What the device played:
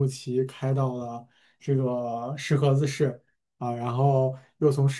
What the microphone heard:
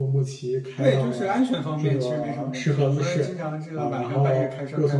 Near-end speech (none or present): present